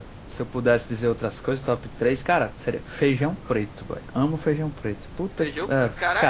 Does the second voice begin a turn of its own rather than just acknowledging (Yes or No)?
Yes